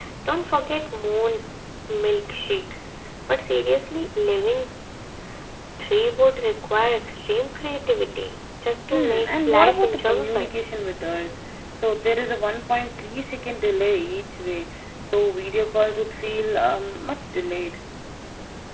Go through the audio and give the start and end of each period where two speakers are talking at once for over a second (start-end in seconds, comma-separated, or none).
8.9-10.5